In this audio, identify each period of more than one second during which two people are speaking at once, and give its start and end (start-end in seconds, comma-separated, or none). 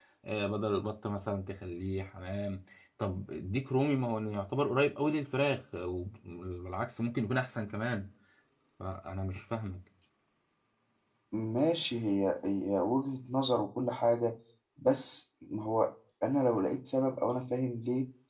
none